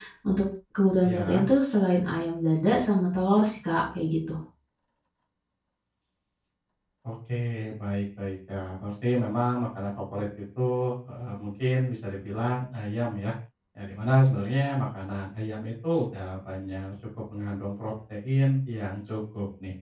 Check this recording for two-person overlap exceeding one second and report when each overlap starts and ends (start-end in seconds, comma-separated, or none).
none